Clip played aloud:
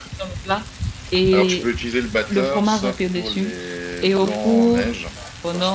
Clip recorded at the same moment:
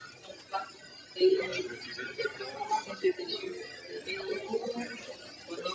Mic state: echo only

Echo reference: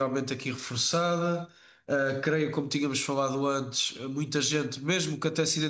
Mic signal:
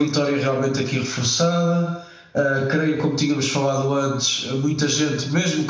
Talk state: echo only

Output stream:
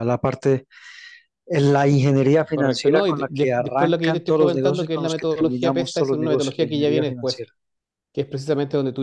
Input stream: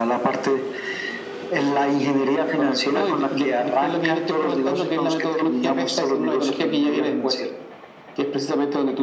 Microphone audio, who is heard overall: echo only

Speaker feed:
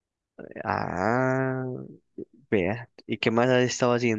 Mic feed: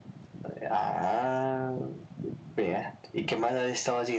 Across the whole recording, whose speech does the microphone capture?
echo only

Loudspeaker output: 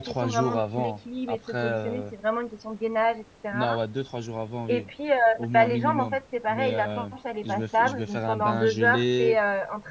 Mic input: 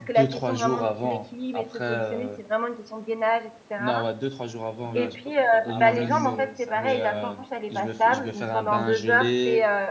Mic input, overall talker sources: both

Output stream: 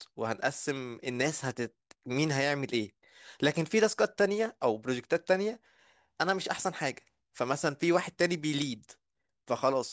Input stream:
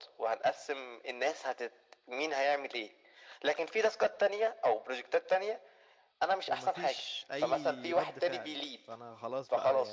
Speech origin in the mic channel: both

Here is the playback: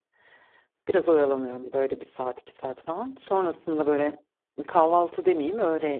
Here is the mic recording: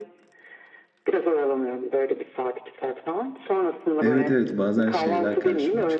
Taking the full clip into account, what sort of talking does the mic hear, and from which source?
both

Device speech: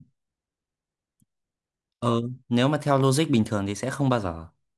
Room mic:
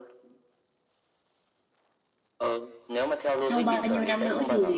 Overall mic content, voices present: both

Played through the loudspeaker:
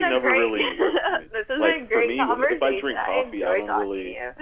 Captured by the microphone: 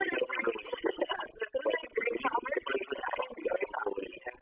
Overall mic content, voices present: echo only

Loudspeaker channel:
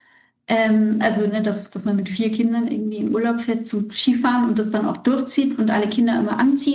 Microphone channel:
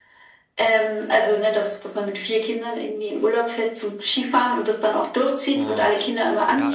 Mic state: both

